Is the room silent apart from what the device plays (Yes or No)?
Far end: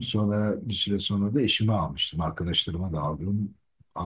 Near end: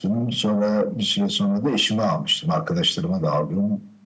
Yes